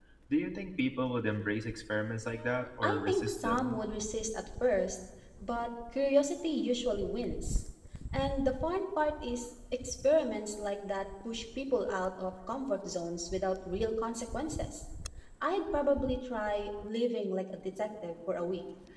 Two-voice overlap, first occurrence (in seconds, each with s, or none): 2.3 s